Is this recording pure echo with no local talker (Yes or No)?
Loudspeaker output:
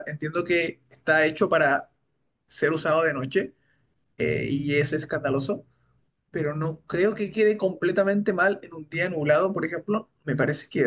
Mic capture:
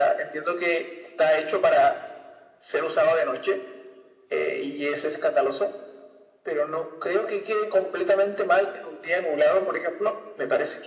Yes